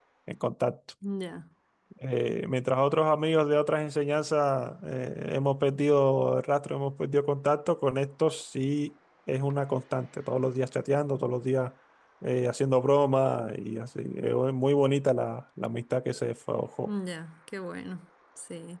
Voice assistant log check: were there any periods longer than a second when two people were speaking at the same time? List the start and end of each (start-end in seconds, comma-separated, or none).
none